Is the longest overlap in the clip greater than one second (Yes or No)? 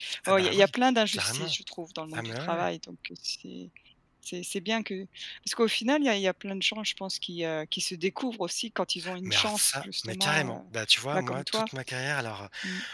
Yes